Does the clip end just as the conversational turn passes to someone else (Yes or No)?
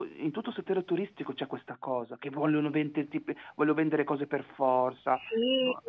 Yes